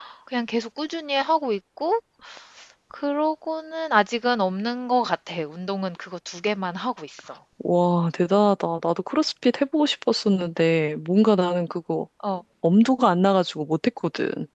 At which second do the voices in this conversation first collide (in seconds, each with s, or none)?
none